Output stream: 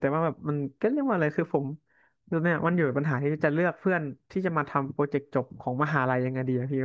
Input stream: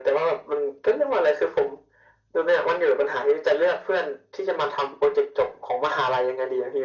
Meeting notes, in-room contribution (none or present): none